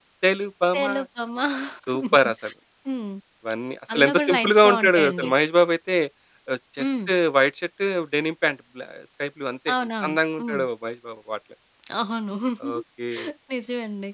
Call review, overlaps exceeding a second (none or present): present